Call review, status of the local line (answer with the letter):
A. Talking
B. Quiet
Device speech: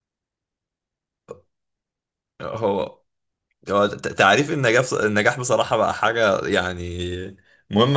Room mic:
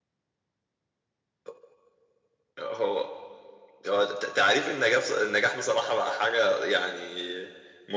B